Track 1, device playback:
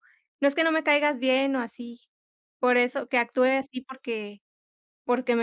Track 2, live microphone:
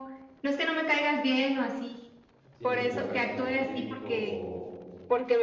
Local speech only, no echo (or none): sin eh, buscar ese conflicto o,